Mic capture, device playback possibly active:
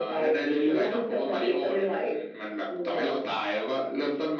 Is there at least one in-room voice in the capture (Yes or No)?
No